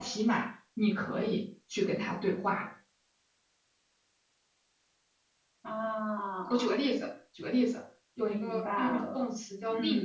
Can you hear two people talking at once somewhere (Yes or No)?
Yes